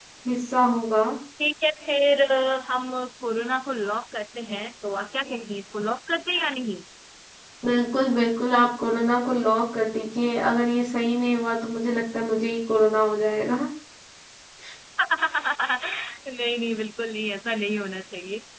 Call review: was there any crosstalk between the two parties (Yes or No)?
No